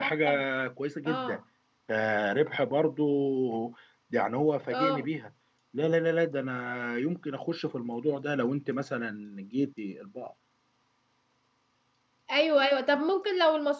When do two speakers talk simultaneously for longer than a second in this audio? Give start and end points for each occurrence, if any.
none

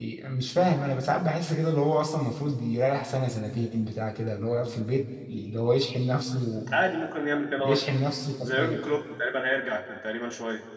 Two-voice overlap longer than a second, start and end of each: none

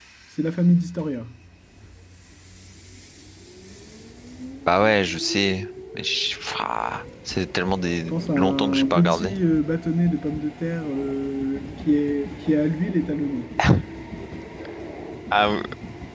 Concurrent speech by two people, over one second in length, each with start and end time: 8.0-9.3

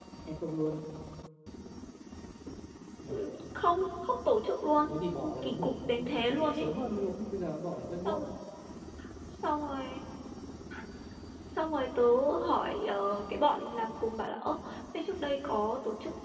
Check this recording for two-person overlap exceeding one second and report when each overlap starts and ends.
5.4-6.7

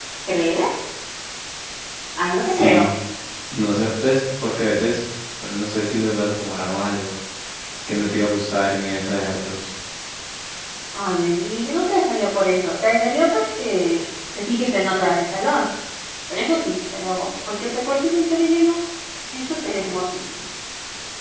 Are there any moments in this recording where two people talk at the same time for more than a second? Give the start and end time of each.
none

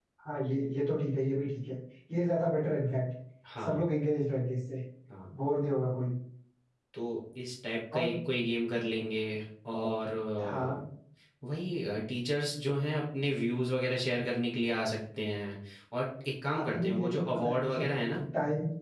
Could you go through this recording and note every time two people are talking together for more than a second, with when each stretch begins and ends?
16.5-17.9

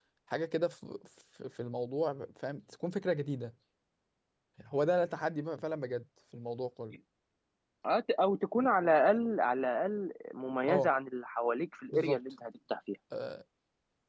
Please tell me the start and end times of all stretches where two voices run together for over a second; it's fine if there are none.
none

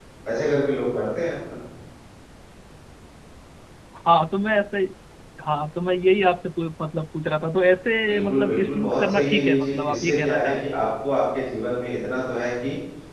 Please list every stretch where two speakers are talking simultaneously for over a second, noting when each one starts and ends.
8.1-10.7

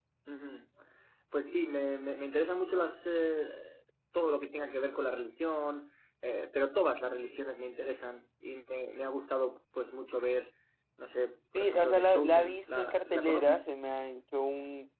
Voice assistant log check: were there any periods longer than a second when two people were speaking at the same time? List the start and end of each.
11.6-13.6

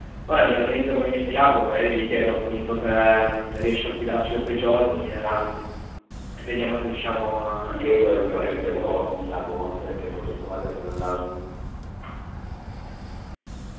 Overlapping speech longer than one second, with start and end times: 7.7-9.0

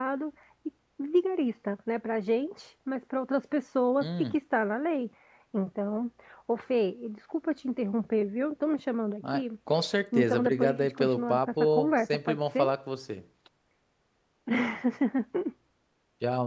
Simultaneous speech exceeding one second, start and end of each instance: 10.2-12.7

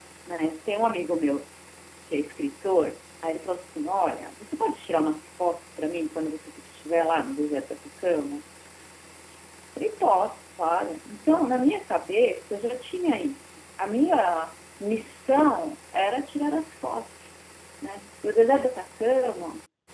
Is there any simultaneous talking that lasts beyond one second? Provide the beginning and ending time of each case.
none

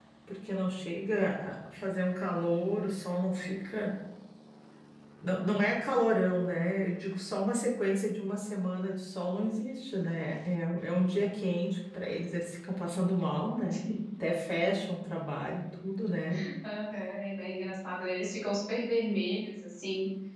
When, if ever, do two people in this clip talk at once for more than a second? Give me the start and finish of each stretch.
none

